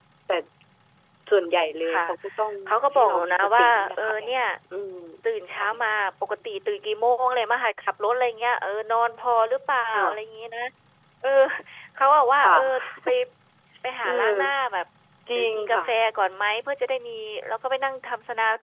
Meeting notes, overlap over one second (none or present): present